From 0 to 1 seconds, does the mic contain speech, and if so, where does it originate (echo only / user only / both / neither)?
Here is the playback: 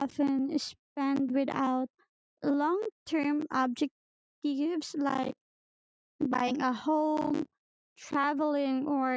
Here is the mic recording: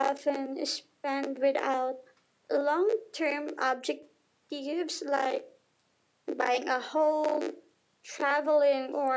echo only